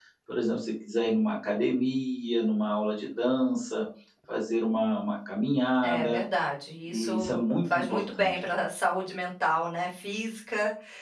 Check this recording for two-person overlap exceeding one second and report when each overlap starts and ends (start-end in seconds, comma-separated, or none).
6.9-8.4